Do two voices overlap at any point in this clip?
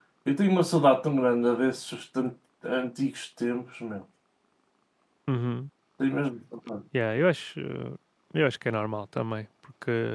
No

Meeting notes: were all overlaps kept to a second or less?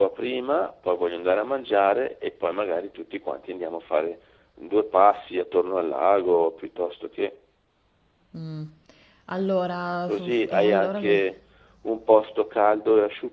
No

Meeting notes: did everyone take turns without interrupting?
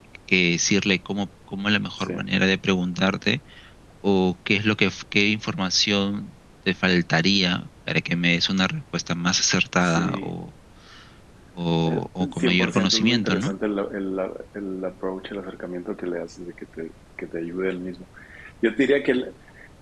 No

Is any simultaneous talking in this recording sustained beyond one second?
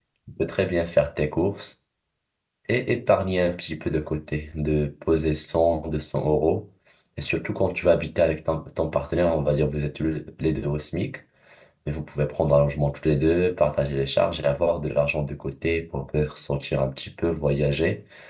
No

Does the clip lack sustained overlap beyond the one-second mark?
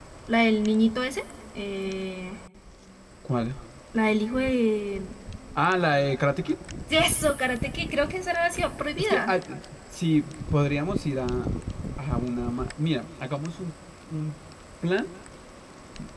Yes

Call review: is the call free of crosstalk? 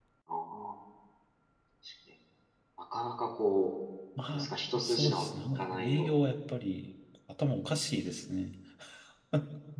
No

